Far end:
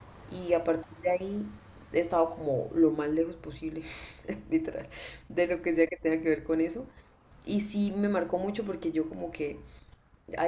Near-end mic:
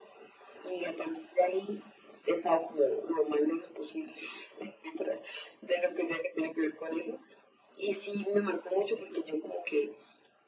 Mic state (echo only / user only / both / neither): echo only